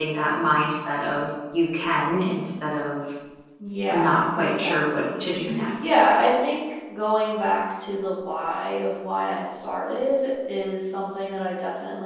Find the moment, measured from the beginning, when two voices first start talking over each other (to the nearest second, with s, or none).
4 s